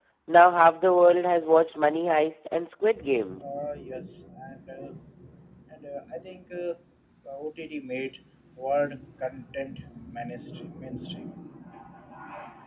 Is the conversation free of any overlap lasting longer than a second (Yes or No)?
Yes